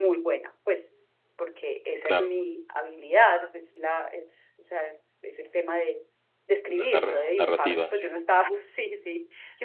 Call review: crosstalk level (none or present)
present